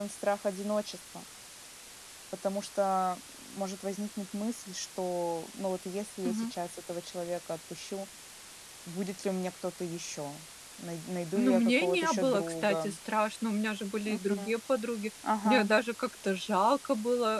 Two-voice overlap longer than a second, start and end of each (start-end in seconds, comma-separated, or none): 11.4-12.9